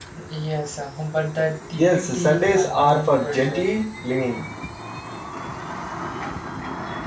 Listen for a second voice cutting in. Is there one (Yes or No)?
Yes